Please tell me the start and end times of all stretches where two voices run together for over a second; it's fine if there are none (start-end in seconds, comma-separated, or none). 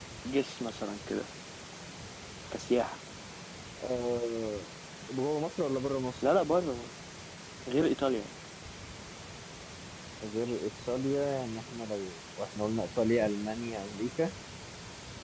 none